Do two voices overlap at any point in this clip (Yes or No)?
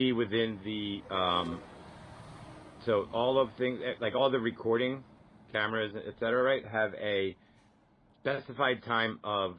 No